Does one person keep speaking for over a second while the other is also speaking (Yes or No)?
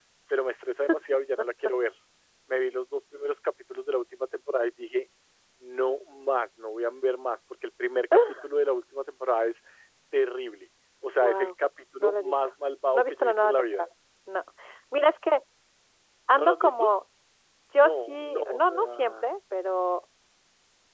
Yes